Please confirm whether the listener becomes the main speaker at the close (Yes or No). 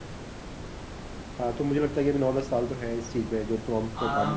Yes